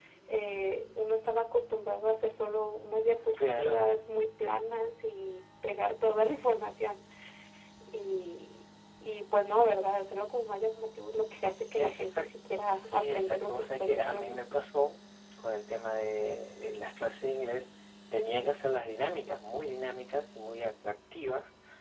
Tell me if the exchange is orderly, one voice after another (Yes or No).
No